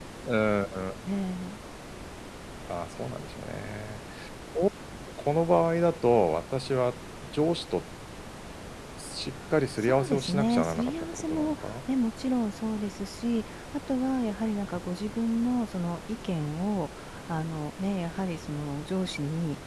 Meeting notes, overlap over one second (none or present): present